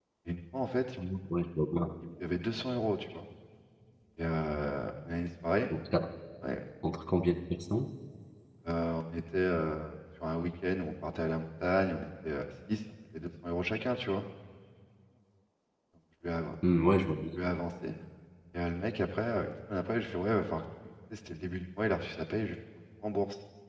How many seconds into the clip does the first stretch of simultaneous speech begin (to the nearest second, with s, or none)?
none